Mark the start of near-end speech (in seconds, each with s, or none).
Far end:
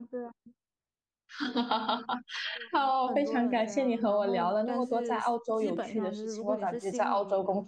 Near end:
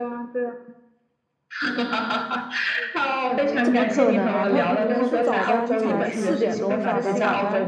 3.6 s